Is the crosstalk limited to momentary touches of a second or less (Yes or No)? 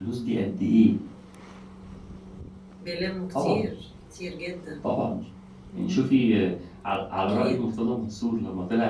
Yes